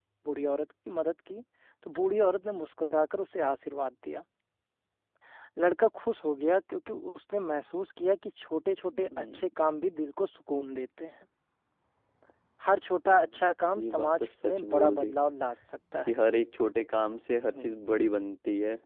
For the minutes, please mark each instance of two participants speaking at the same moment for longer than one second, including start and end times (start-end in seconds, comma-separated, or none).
13.8-15.1